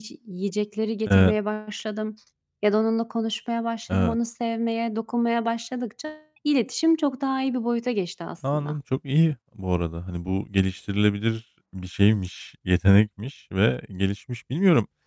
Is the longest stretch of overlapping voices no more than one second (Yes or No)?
Yes